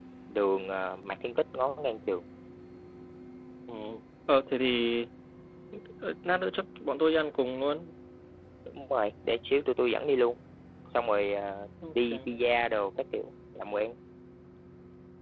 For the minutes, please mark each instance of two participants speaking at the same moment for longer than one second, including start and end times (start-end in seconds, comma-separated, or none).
none